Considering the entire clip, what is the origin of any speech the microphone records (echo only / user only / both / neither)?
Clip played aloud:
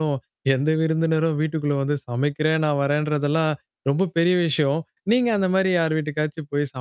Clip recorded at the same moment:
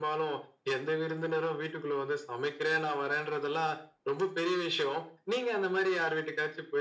echo only